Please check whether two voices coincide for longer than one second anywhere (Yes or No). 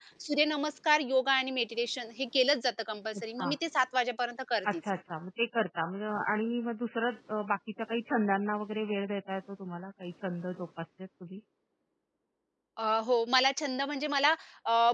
No